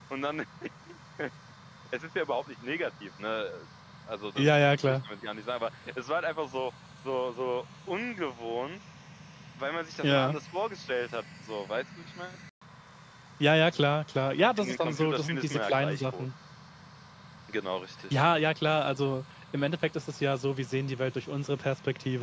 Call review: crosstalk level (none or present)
present